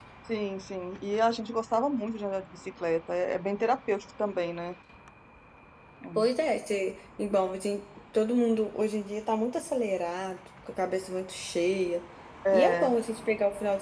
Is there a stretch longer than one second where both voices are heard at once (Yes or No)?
No